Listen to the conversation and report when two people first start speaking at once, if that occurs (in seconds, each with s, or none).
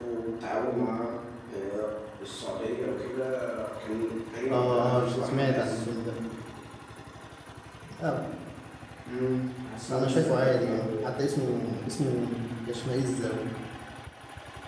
4.5 s